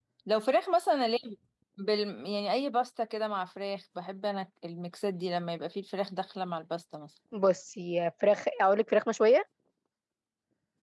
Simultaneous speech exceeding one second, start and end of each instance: none

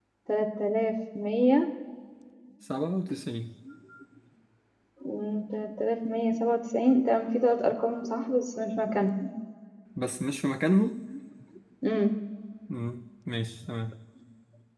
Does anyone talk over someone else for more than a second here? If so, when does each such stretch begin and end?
none

